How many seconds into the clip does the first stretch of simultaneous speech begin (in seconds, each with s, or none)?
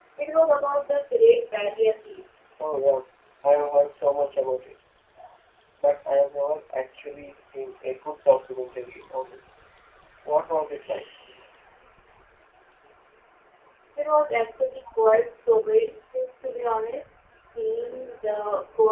none